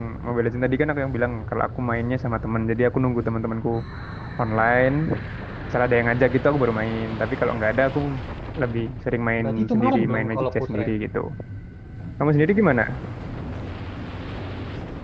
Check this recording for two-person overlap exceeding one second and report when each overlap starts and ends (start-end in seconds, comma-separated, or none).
9.4-10.9